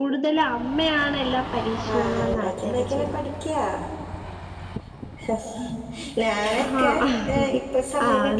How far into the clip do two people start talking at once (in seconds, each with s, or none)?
1.9 s